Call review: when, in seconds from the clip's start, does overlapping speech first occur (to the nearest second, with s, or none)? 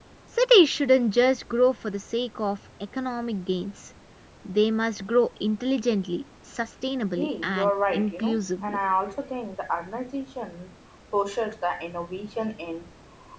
7 s